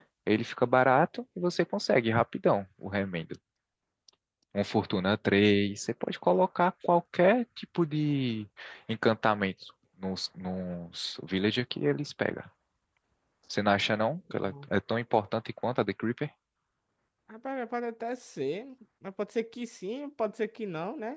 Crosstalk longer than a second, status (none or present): none